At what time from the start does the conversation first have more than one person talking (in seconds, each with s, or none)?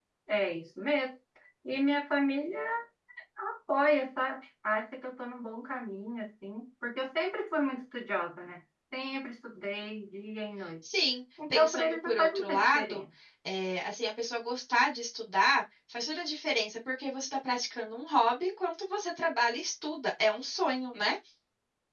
11.5 s